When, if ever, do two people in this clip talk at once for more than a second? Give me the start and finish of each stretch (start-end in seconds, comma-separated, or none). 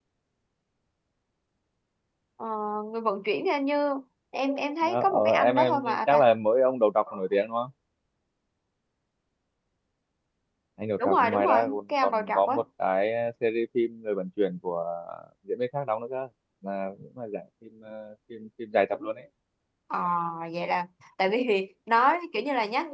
4.8-6.2, 11.0-12.6